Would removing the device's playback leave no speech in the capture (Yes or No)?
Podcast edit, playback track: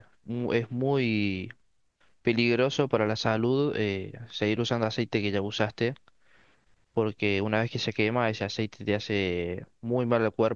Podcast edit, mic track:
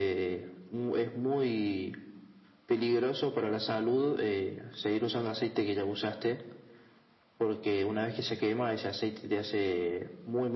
Yes